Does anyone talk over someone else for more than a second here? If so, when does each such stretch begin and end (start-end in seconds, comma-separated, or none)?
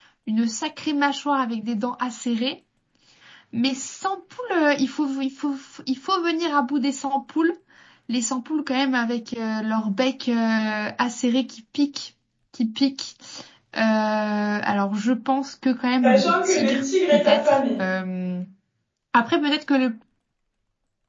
16.0-17.8